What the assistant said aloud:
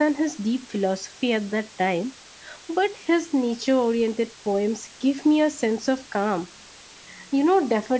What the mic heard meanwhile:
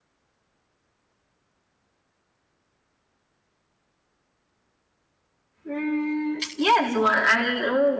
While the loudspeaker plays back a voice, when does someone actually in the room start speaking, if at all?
6 s

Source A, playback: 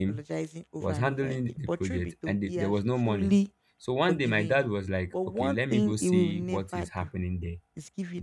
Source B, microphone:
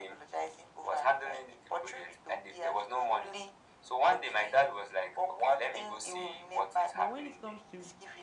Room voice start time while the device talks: 7 s

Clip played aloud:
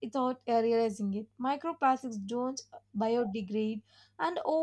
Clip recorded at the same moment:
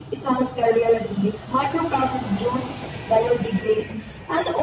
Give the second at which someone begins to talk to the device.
none

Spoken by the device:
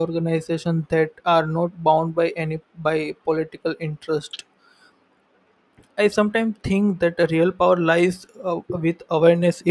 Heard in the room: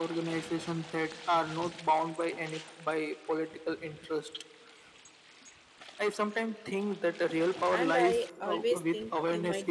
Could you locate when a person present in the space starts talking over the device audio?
8 s

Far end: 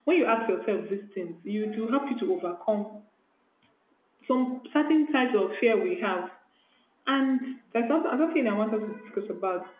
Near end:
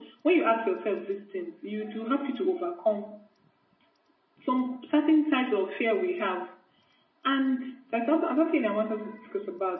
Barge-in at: none

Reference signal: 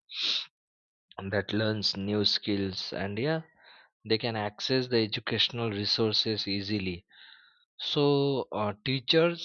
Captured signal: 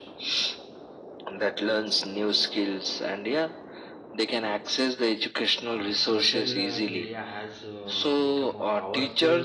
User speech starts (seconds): 6 s

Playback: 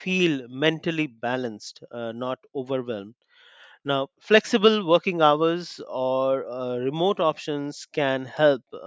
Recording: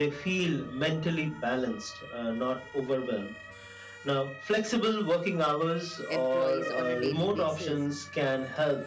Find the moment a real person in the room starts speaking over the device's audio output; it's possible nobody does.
6 s

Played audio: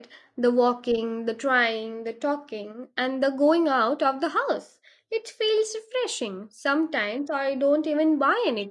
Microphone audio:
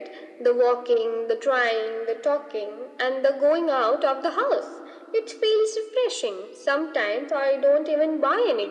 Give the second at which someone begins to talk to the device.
none

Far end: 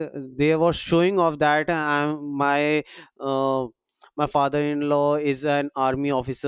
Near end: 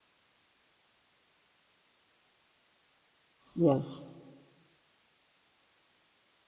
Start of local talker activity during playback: 4 s

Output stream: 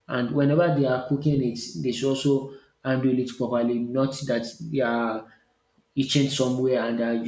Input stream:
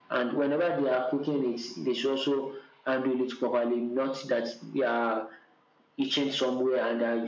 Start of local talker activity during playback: none

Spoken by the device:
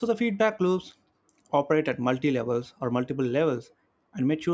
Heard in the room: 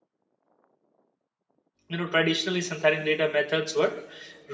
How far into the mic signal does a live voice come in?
2 s

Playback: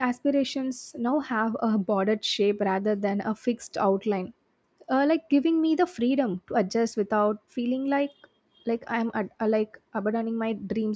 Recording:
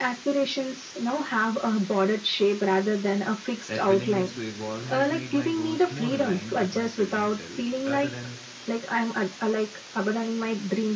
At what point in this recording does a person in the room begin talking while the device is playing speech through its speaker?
4 s

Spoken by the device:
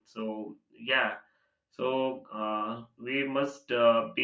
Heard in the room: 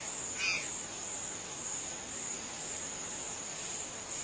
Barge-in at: none

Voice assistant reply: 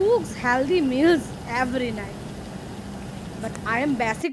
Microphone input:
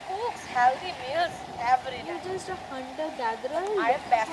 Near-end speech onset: 2 s

